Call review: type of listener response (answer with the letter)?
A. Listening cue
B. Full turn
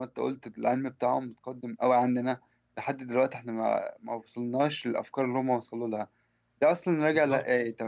A